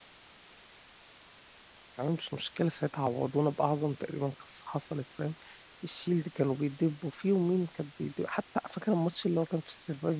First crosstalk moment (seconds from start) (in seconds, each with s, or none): none